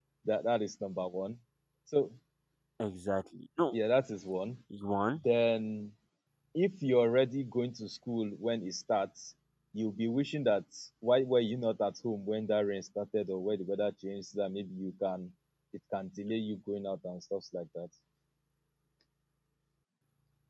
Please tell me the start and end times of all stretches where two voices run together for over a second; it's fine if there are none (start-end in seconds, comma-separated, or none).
none